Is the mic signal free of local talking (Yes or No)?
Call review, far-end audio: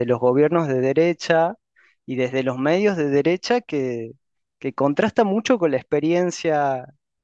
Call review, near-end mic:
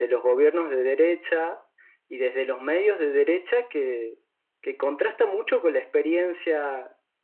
Yes